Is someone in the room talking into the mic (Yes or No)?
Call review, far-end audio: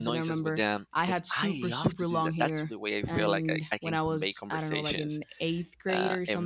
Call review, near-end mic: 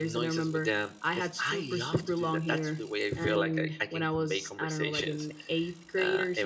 No